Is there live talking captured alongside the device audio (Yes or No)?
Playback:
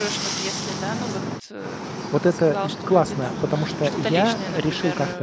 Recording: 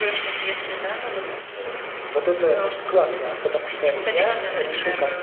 No